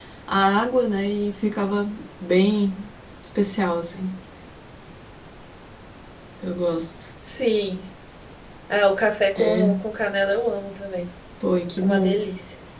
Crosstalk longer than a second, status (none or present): none